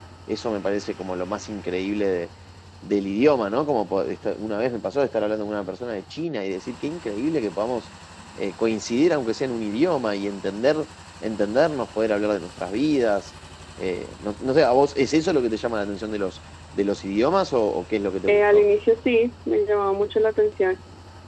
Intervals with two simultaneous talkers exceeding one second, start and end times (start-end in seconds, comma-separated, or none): none